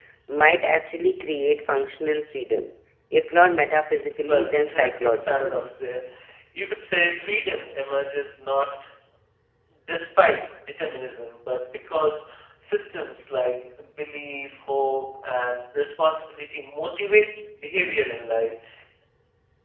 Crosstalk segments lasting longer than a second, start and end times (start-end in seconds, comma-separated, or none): 4.2-5.7